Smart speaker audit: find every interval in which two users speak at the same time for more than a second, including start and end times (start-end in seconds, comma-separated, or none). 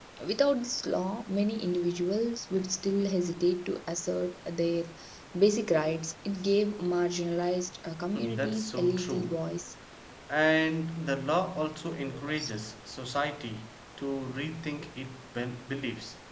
8.2-9.4